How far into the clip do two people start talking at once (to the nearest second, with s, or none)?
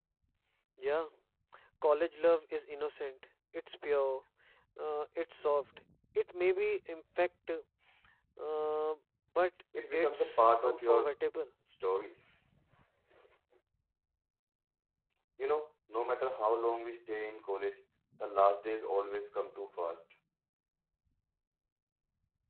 10 s